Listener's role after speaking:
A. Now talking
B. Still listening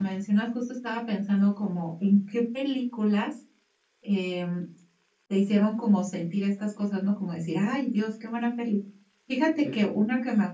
B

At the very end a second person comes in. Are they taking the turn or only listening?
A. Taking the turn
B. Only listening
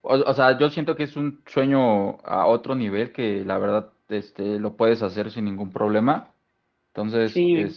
B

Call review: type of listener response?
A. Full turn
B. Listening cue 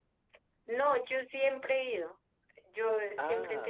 B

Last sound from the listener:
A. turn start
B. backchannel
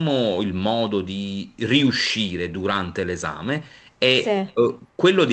B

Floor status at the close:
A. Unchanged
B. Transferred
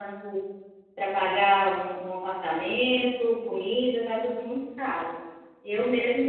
A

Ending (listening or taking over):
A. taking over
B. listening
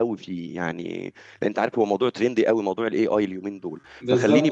B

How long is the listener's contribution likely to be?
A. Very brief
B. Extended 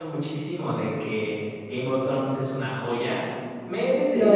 A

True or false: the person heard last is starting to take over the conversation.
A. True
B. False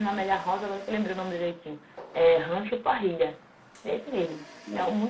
B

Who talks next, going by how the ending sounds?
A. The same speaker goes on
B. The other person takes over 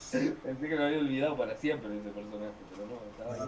B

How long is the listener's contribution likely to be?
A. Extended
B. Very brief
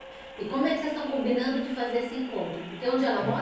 A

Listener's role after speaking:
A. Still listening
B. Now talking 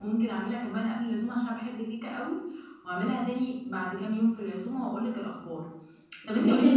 A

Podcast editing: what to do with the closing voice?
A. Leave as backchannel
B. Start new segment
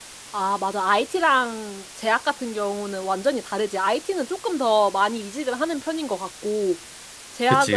A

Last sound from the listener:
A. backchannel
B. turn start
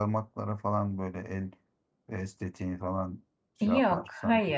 B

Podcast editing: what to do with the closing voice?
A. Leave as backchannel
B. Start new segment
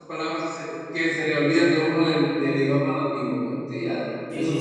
B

